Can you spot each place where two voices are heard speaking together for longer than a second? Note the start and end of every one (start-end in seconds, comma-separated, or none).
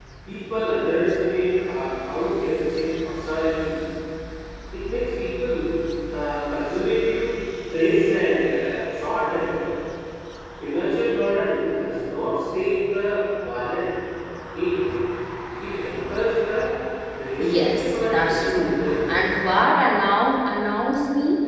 17.5-18.8